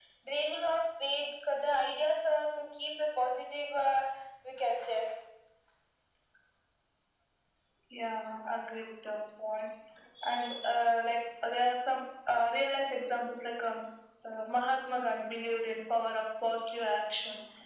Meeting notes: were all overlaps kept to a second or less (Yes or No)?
Yes